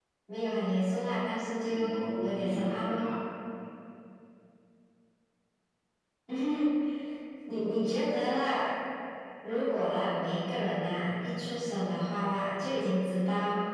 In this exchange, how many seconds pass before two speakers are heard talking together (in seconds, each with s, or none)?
1.7 s